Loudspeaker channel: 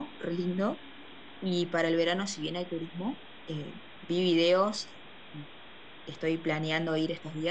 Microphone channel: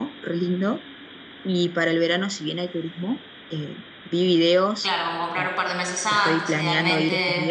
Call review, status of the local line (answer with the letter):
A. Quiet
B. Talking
B